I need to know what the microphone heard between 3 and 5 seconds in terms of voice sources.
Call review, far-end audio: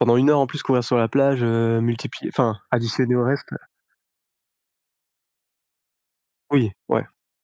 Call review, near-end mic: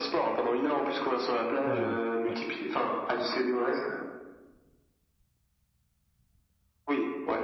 echo only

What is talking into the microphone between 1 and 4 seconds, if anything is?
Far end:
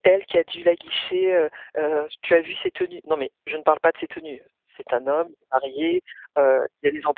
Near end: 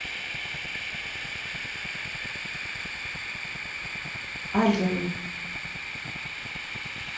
neither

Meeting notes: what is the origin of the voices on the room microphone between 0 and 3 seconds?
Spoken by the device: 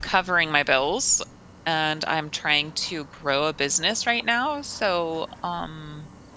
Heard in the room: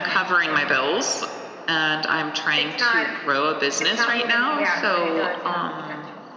both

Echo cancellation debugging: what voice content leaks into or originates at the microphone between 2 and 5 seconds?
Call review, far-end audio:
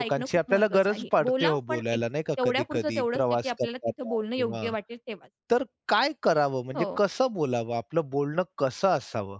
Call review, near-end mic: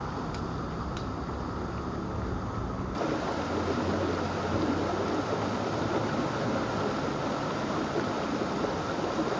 neither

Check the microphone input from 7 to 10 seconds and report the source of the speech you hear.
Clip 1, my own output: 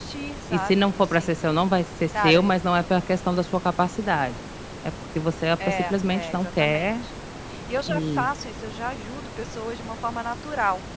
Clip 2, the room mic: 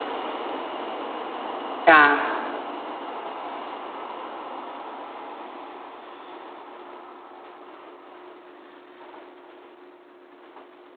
neither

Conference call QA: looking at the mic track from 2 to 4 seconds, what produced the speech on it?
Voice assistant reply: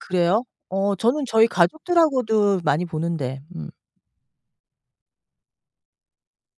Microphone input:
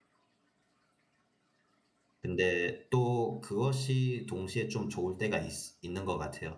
user only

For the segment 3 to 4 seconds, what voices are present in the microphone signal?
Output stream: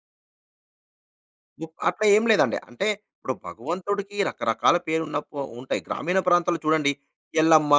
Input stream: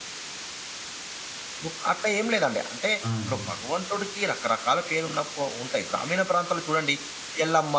both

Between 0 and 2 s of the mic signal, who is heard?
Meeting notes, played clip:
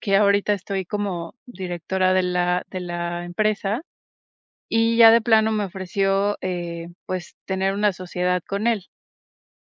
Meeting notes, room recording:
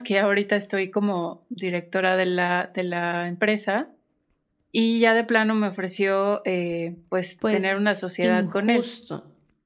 echo only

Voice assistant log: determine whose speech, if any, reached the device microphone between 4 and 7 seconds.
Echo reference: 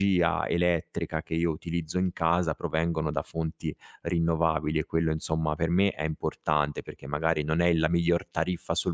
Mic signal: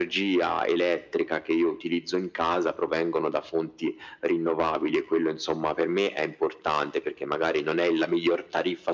echo only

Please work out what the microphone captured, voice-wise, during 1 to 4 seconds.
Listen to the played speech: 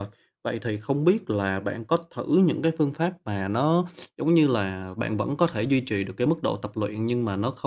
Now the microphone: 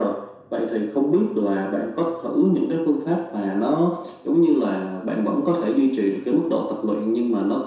echo only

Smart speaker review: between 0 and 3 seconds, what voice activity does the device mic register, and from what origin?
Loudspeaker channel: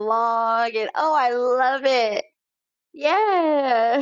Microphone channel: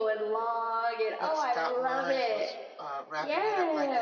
both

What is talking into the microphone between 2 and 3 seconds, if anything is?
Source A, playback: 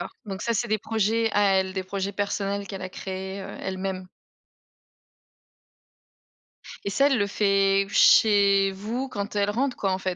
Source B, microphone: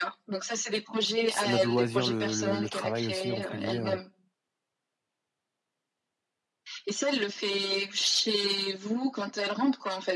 both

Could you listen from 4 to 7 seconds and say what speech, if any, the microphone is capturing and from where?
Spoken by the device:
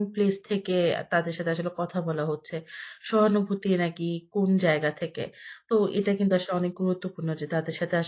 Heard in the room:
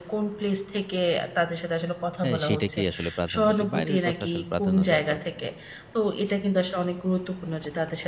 both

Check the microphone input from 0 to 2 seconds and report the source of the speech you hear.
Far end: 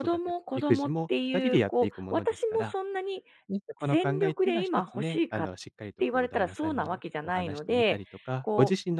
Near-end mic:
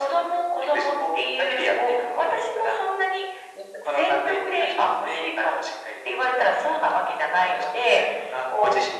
echo only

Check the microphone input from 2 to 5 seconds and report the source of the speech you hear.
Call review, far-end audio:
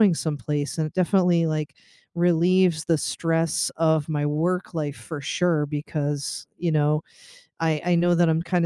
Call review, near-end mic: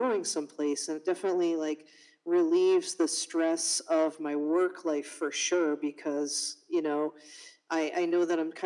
echo only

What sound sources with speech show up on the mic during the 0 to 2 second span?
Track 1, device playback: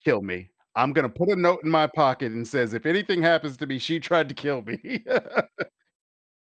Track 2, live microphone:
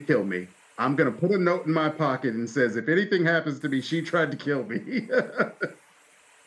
echo only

